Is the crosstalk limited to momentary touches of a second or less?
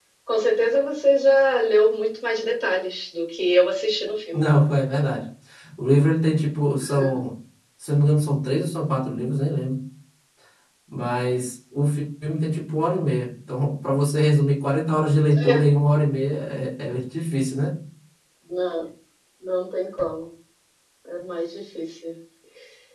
Yes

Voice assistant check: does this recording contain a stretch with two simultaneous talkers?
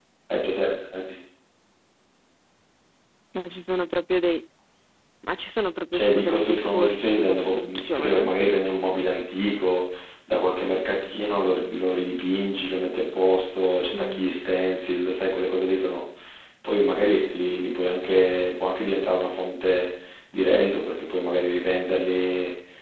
Yes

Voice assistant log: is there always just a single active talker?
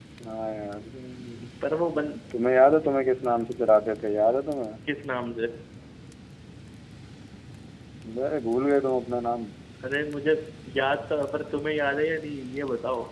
Yes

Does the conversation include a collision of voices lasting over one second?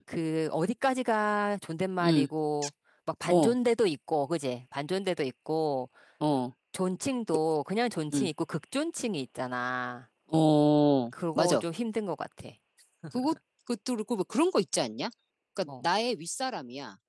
No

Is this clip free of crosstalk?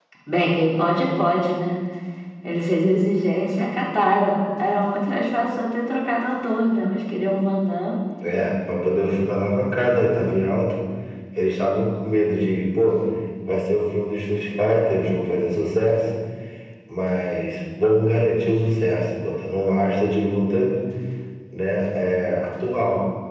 Yes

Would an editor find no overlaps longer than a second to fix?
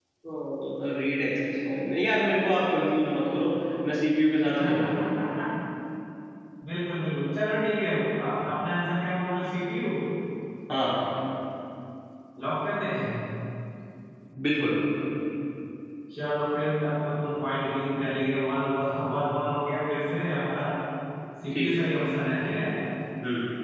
Yes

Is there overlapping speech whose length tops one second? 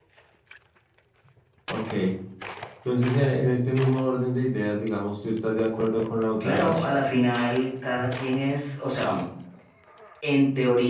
No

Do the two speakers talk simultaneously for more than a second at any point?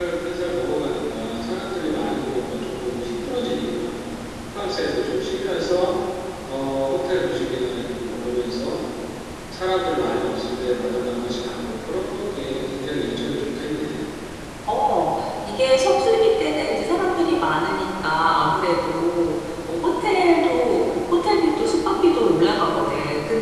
No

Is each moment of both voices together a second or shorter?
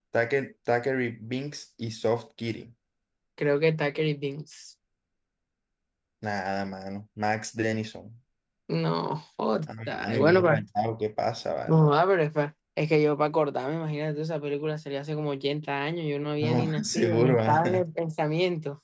No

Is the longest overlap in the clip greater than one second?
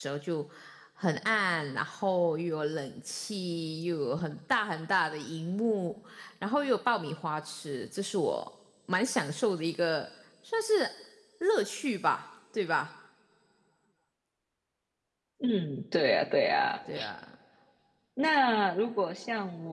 No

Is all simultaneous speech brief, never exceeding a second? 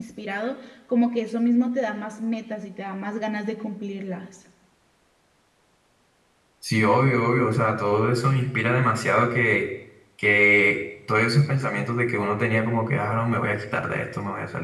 Yes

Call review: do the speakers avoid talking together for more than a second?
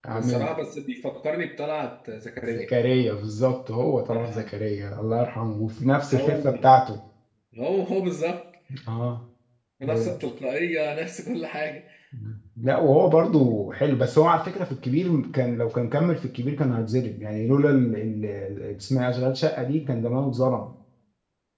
Yes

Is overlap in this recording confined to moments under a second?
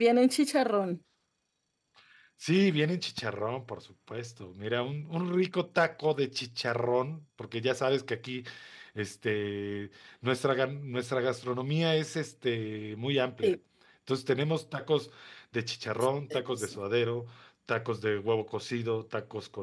Yes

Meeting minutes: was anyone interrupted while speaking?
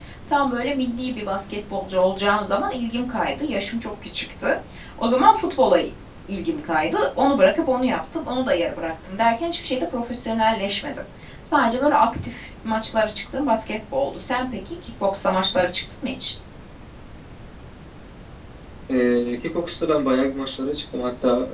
No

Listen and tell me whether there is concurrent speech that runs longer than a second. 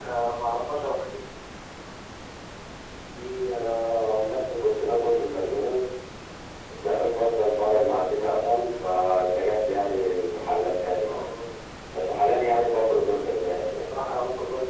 No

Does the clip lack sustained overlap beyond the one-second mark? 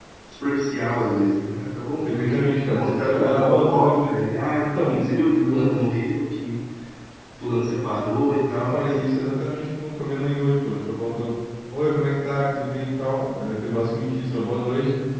No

